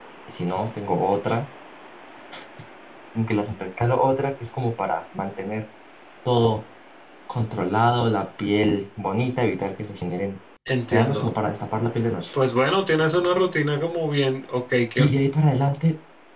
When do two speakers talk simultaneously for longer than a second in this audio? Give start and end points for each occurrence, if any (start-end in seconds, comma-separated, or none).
none